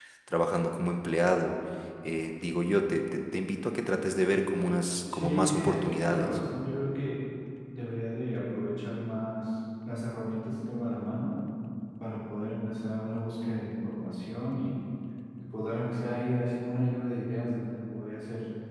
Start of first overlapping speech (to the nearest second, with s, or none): 5 s